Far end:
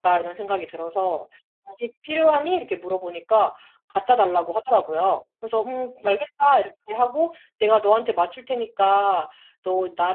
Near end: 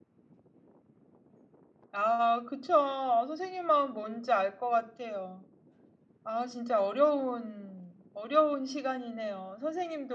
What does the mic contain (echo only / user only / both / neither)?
user only